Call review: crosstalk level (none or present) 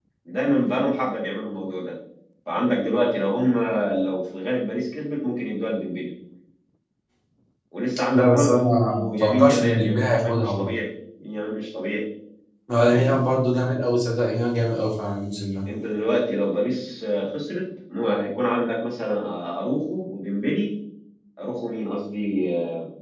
present